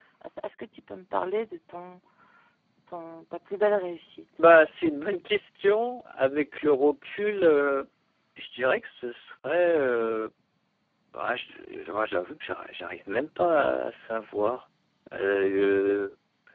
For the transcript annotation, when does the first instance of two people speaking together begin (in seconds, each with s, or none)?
none